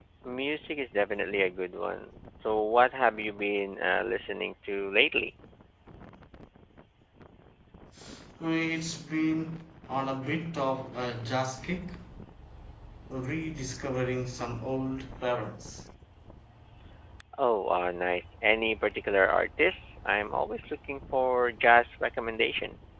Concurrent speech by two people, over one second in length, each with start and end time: none

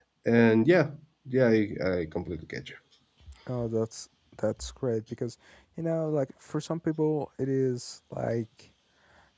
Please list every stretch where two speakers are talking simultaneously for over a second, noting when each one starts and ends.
none

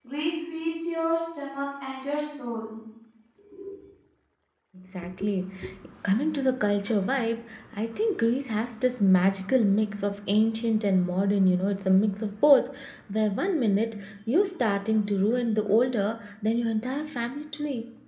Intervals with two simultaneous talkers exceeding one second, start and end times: none

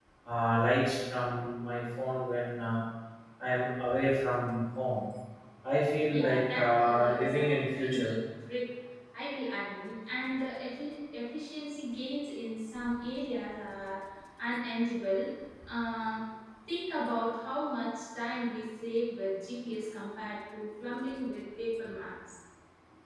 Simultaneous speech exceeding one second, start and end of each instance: 6.1-8.1

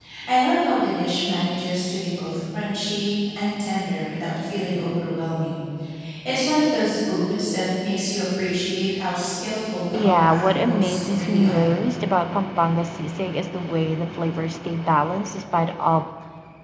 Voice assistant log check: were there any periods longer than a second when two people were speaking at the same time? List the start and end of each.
9.9-11.7

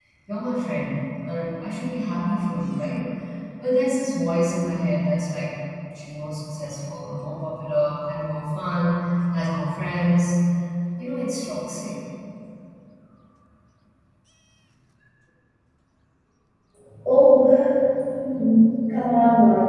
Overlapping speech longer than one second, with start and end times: none

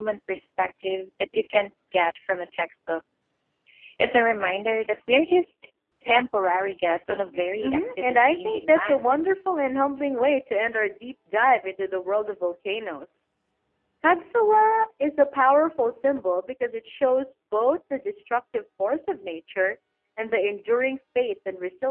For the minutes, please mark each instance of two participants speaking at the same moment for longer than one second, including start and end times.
7.6-9.0

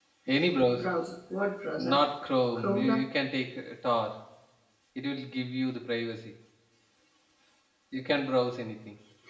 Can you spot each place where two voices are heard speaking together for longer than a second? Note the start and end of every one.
none

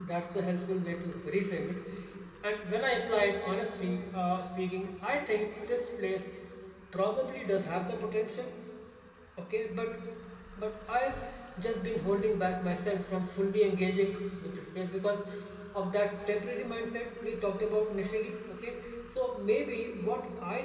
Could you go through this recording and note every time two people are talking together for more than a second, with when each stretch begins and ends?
none

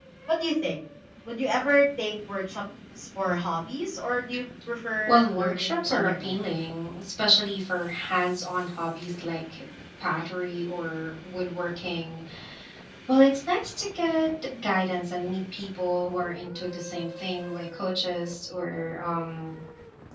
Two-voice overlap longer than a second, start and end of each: 5.1-6.4

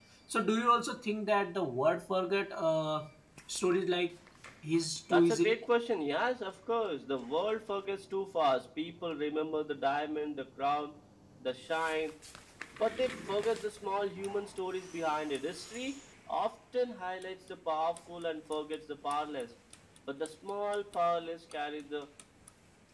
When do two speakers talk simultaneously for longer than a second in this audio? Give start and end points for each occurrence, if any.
none

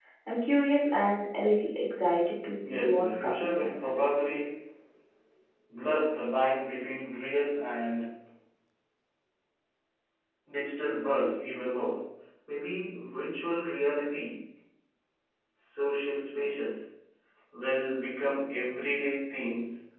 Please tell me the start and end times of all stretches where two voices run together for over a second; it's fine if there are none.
2.6-4.0

